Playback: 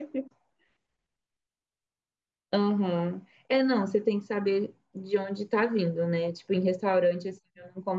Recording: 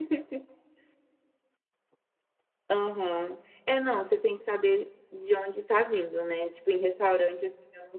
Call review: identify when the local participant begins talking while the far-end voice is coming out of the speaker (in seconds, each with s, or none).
none